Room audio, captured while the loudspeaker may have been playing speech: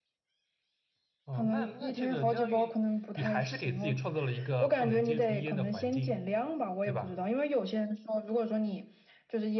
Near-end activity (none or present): present